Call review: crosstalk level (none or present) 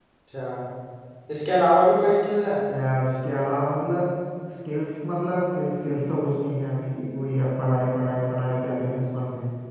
none